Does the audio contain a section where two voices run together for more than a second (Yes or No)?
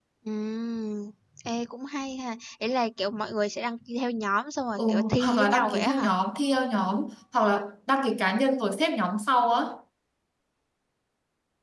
Yes